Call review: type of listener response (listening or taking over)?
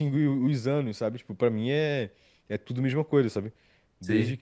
listening